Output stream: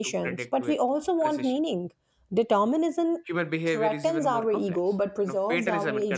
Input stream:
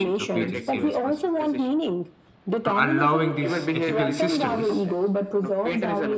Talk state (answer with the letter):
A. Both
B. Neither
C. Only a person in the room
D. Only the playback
A